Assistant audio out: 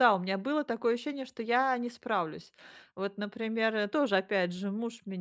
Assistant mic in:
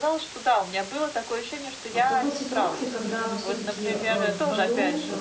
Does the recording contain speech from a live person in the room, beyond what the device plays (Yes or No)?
Yes